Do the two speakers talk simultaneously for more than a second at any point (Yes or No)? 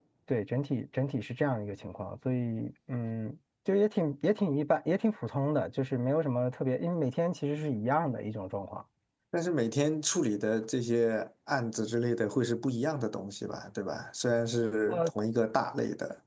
No